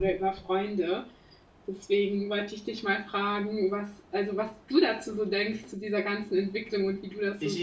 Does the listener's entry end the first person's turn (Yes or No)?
Yes